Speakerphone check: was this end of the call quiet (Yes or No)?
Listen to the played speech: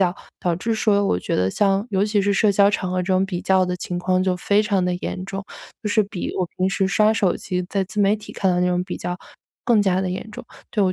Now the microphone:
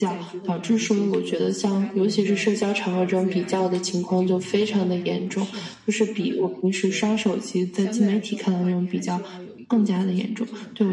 No